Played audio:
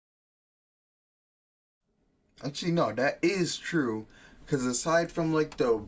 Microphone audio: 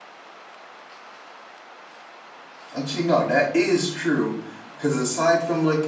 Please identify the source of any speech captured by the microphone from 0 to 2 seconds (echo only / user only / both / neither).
neither